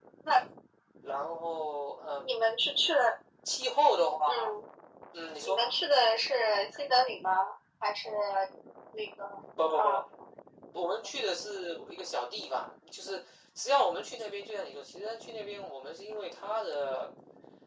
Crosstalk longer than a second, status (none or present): none